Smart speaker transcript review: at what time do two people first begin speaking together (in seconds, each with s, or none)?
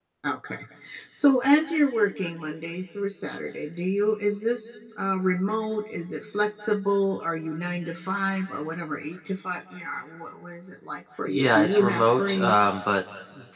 11.3 s